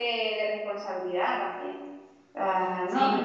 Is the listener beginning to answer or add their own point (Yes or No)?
No